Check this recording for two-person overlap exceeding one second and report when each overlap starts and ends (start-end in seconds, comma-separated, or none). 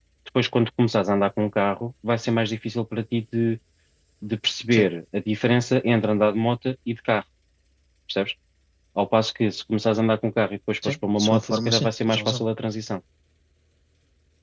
10.8-12.4